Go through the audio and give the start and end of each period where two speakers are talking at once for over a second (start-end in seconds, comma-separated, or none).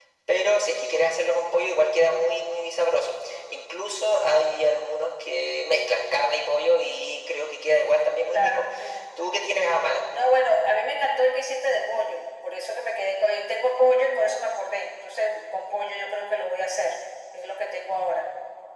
none